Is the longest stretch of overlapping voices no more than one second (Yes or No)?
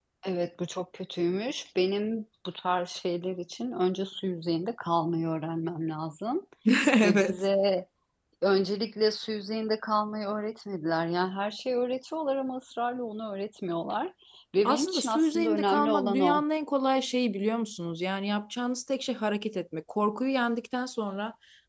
No